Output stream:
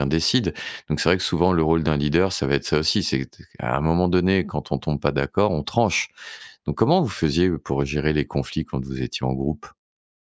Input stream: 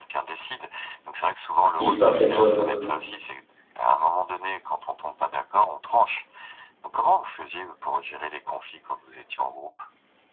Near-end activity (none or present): present